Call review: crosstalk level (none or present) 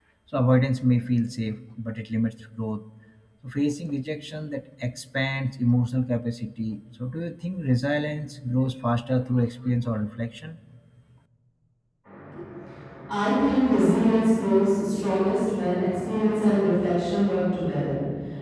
none